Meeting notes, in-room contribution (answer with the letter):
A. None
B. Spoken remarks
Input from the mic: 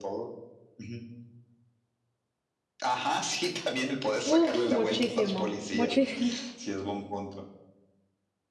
B